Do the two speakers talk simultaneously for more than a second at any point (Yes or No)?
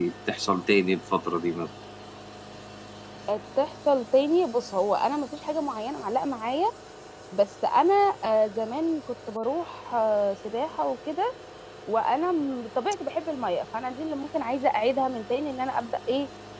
No